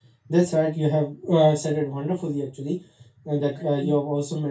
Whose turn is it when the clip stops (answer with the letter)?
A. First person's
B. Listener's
A